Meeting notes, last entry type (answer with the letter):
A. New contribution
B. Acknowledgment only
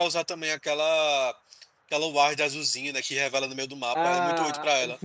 A